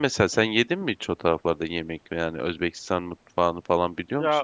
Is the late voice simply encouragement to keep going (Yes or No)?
No